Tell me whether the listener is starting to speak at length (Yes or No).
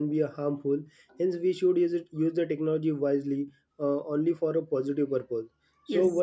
No